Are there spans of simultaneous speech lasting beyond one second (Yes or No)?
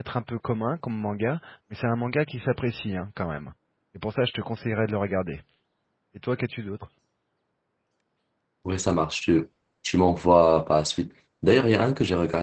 No